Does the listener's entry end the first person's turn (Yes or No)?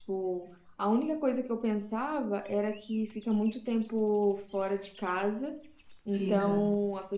No